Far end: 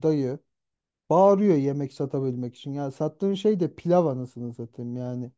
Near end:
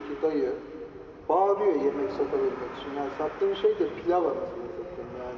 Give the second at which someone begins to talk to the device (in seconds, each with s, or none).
none